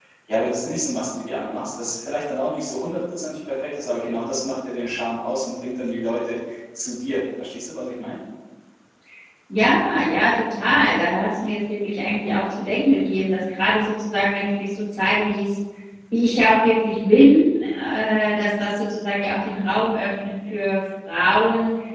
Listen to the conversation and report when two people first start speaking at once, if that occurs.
none

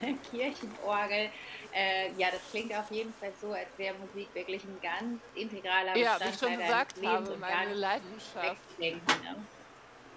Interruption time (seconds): 6 s

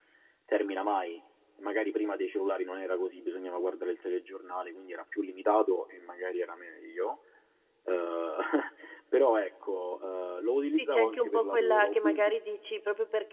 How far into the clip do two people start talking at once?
11 s

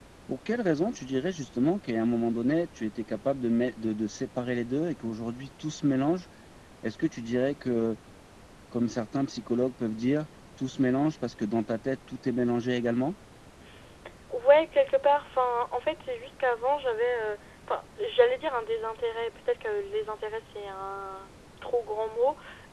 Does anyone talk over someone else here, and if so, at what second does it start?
none

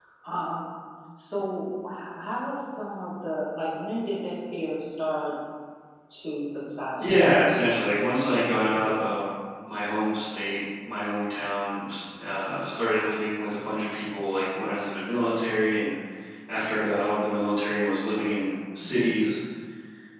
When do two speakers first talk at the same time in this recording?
7 s

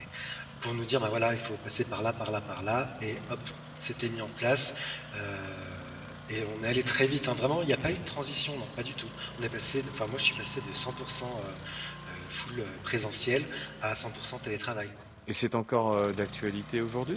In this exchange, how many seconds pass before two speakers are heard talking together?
none

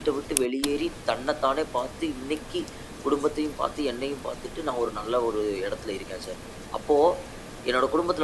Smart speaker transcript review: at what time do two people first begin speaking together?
none

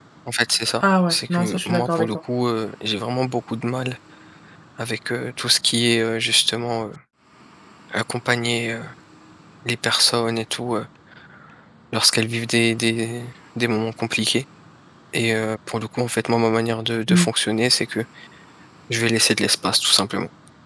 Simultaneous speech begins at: 1 s

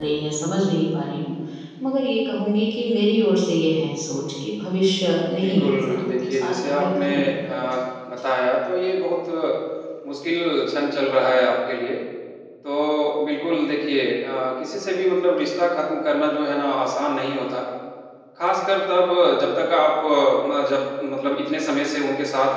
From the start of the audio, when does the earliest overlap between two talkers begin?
5 s

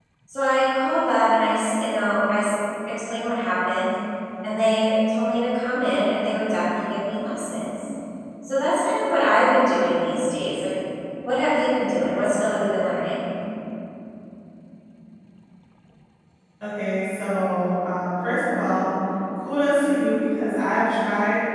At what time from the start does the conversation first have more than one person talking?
none

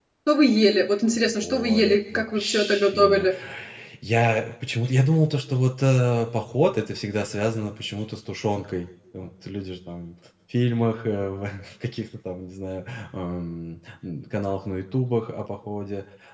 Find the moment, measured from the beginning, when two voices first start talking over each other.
1 s

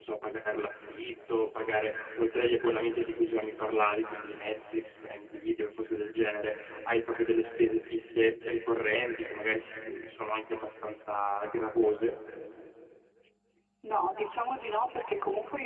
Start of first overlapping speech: none

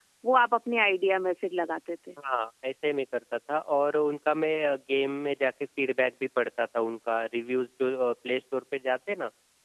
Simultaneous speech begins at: none

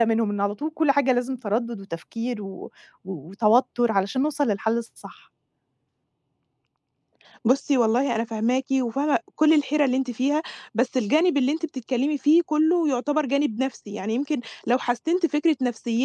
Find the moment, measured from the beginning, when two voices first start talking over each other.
none

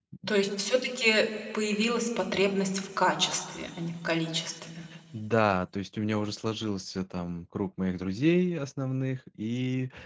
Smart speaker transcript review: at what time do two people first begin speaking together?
none

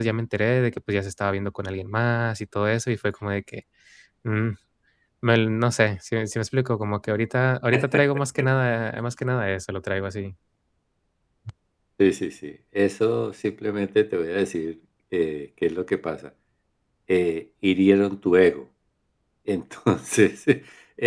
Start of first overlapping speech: none

